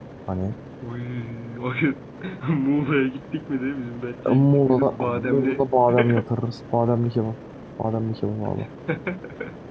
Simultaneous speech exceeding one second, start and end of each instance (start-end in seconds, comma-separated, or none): 4.1-5.7